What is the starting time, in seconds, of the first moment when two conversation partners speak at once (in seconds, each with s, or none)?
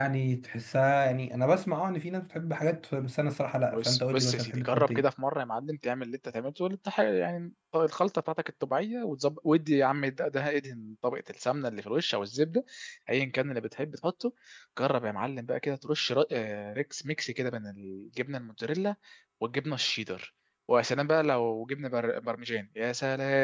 3.7 s